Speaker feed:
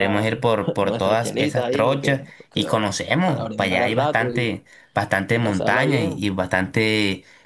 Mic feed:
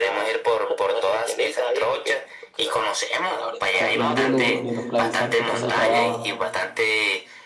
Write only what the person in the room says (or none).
salir de, lo, de los clavizantes que es el trabajo.